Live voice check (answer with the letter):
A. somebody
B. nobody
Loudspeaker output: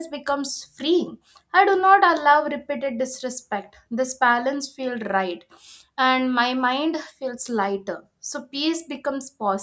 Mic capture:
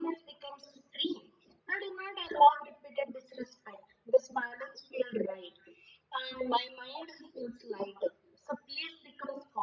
B